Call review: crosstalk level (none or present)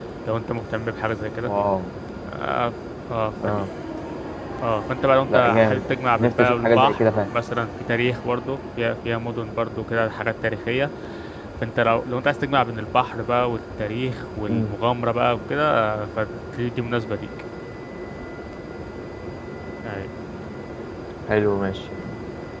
present